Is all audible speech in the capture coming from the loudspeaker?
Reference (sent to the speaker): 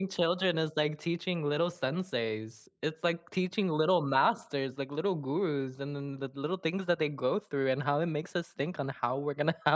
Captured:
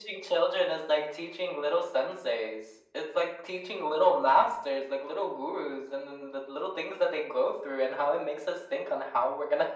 Yes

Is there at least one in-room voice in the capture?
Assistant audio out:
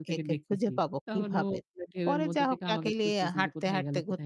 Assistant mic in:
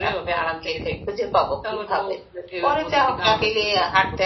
No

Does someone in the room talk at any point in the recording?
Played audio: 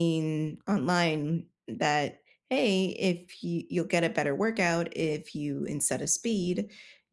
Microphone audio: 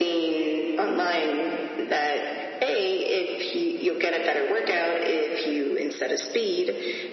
No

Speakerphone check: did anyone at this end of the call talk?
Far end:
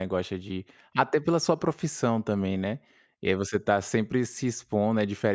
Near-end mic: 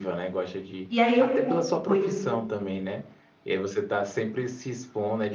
Yes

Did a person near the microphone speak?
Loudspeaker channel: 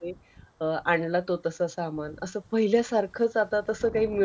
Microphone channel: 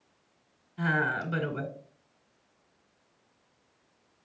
Yes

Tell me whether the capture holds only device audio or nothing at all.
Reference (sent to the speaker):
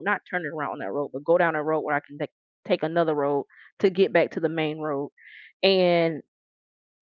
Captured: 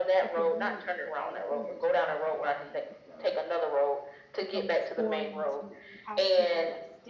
No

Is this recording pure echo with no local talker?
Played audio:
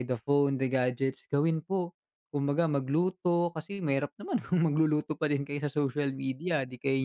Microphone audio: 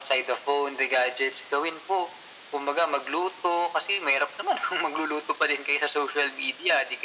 Yes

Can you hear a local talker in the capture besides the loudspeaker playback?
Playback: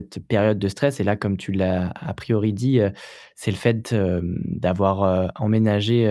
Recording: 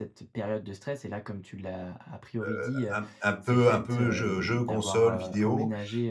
Yes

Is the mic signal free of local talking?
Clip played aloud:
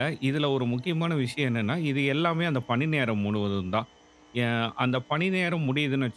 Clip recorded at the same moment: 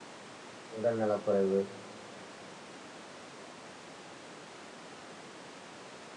No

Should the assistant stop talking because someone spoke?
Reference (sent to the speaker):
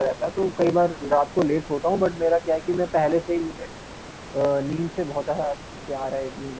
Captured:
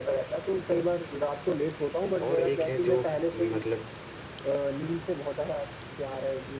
Yes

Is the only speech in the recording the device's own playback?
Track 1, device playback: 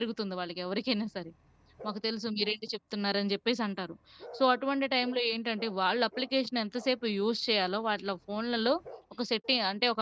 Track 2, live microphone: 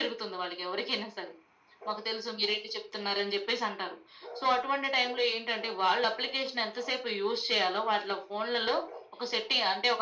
Yes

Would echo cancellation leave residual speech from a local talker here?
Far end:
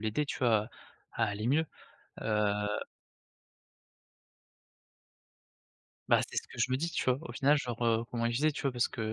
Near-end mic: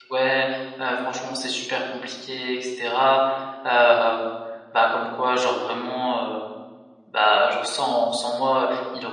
Yes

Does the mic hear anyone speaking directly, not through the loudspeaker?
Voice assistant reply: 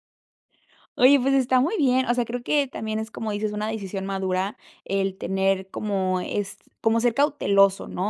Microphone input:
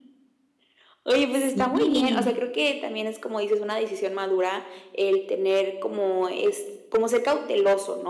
Yes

